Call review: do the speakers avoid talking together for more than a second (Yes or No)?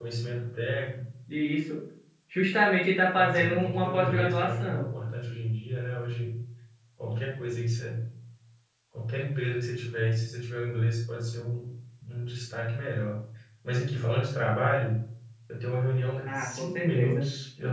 No